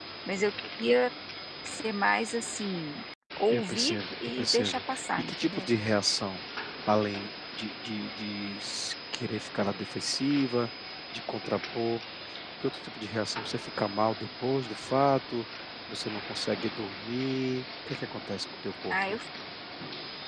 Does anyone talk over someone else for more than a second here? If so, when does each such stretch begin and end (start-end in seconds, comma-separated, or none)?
3.5-5.7